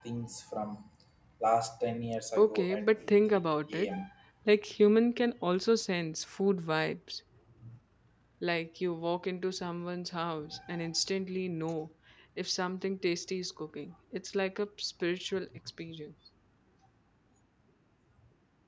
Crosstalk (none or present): present